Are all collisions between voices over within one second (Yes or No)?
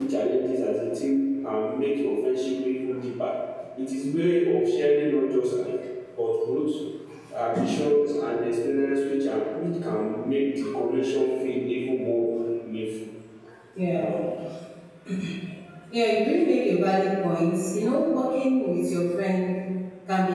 Yes